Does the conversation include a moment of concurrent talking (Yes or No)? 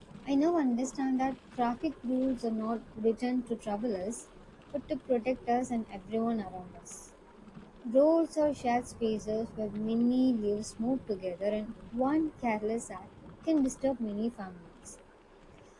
No